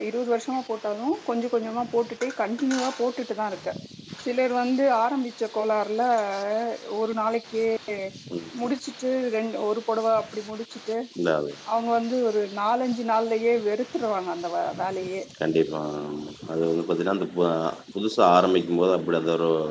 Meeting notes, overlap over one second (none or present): none